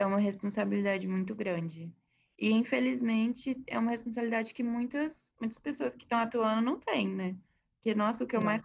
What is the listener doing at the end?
listening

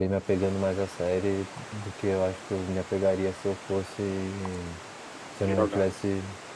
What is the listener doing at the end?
listening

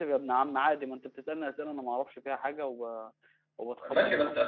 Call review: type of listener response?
taking over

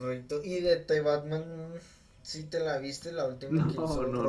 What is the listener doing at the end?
taking over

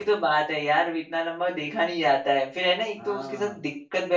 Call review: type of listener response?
listening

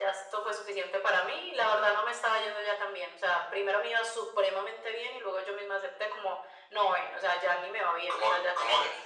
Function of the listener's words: taking over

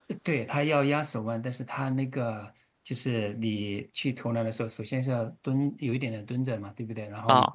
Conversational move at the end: listening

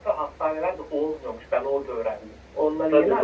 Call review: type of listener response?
taking over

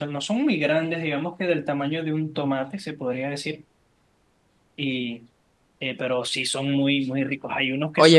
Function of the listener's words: taking over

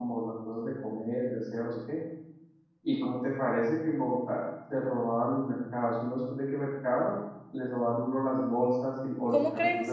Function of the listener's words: listening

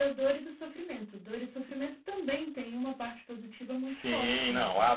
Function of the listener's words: taking over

